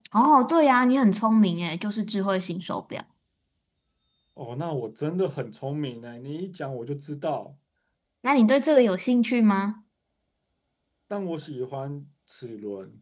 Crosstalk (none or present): none